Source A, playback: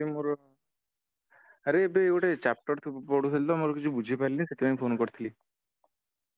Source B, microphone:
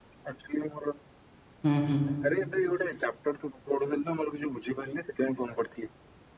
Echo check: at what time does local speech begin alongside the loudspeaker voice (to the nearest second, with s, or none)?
2 s